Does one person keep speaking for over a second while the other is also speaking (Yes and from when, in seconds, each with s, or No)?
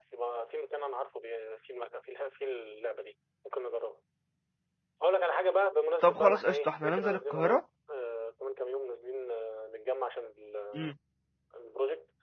Yes, from 6.0 s